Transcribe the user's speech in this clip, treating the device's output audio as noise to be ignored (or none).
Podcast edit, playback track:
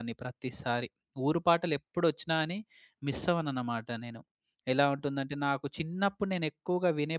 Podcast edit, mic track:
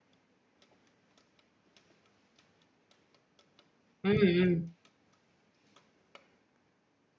హ్మ్. హ్మ్.